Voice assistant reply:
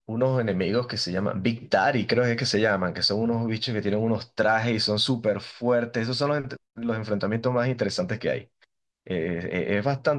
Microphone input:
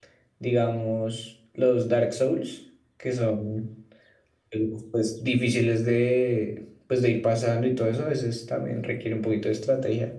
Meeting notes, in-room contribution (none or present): present